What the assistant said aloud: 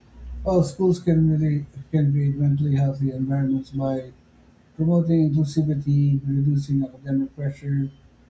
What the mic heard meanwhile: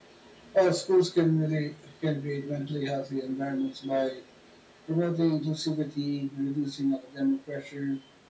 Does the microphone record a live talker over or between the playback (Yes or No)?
No